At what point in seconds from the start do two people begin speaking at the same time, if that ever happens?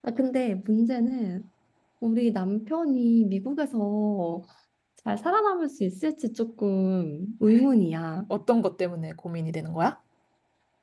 none

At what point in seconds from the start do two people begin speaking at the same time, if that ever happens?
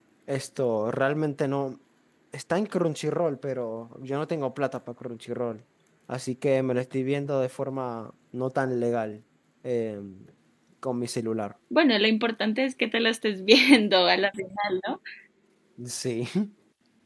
none

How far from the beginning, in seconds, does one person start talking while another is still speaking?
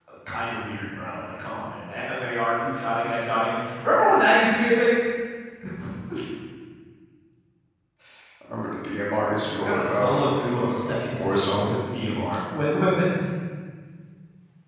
9.6 s

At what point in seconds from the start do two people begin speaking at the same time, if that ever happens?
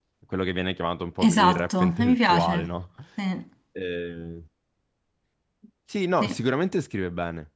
1.2 s

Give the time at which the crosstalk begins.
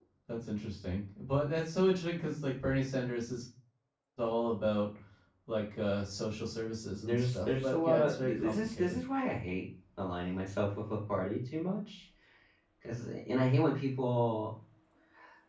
7.0 s

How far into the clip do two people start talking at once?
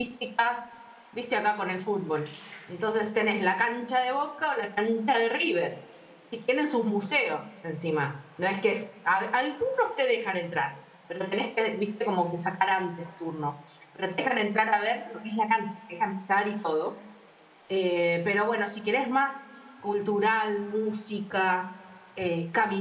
none

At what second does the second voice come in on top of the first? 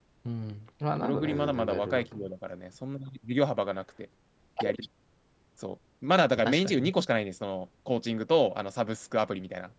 1.0 s

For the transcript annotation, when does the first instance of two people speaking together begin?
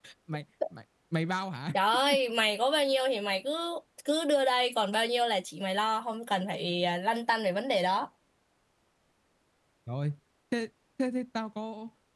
none

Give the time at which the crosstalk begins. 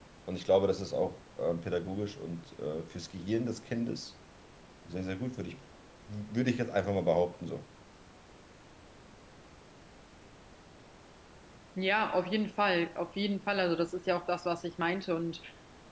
none

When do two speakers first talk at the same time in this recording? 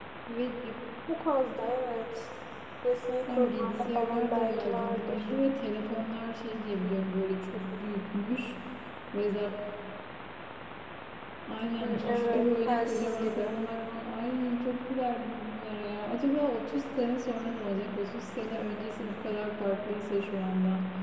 3.3 s

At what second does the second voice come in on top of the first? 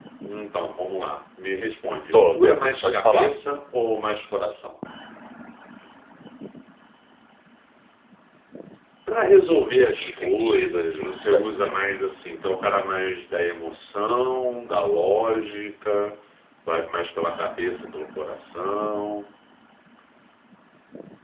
2.1 s

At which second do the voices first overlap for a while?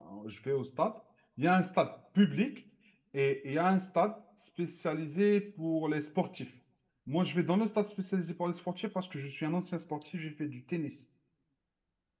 none

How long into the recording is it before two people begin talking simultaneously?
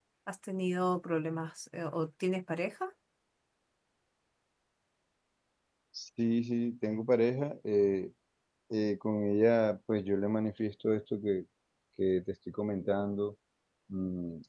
none

